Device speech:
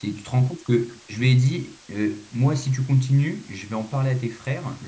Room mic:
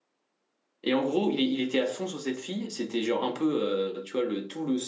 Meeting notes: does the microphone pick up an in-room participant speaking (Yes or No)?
Yes